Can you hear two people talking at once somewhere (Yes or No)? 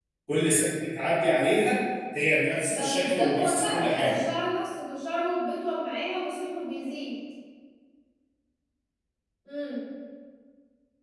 Yes